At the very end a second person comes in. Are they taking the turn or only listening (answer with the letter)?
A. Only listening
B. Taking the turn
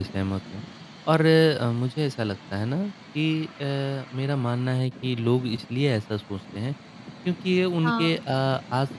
A